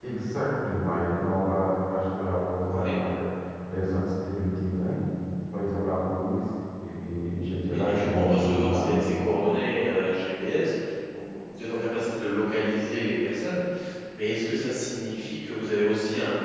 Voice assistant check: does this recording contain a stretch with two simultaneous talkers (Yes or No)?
Yes